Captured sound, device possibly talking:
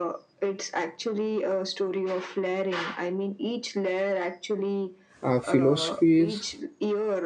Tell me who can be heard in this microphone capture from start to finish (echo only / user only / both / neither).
both